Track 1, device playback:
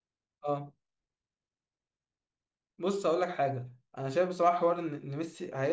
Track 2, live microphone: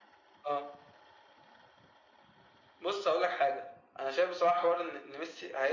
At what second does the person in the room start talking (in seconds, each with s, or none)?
none